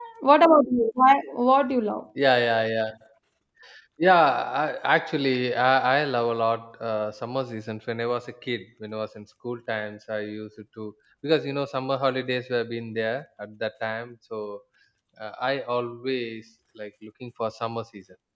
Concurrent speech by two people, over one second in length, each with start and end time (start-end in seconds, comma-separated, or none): none